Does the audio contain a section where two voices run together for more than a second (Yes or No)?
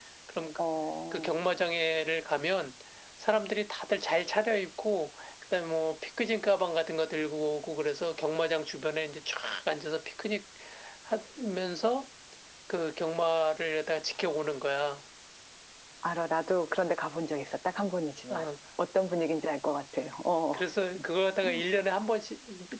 No